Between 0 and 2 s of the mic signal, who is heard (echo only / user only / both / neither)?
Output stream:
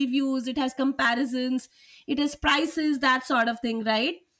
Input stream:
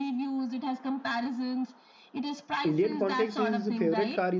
echo only